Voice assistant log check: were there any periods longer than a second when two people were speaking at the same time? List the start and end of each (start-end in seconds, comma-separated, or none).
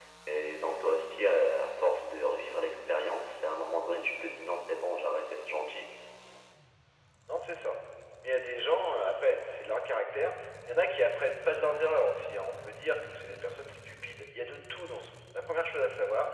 none